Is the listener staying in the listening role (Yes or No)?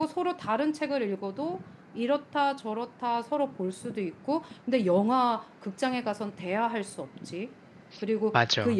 Yes